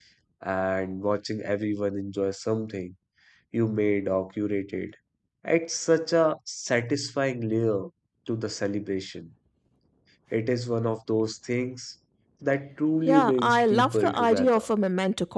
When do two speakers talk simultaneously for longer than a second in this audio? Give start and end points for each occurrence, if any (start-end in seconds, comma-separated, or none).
13.1-14.6